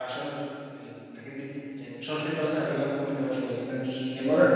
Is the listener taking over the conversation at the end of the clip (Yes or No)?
Yes